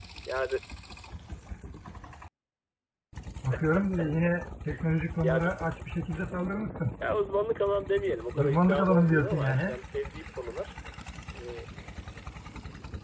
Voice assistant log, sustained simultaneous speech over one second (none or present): present